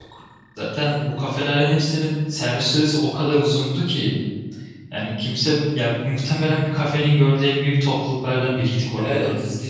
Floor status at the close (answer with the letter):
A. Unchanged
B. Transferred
B